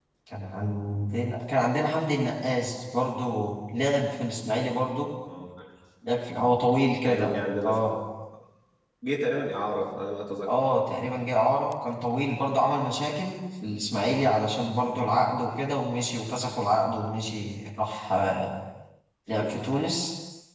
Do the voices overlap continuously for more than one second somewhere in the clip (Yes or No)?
No